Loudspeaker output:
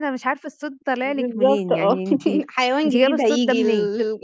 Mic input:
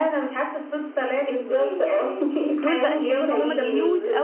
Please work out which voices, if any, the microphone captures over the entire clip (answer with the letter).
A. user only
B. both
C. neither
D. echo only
B